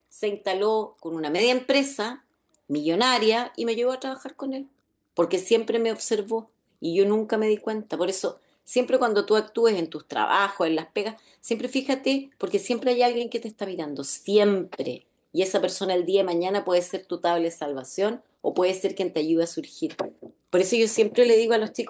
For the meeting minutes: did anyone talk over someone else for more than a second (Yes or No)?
No